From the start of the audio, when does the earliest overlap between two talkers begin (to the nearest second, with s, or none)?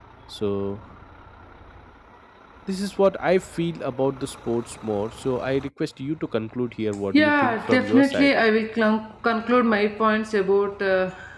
7 s